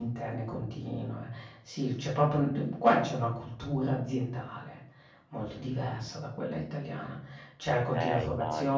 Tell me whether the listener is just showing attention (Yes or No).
Yes